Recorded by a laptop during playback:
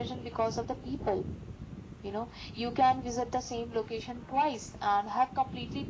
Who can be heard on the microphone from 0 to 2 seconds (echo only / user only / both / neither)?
echo only